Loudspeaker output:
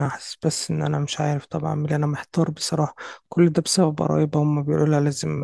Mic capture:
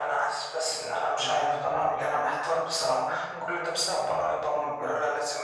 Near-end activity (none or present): present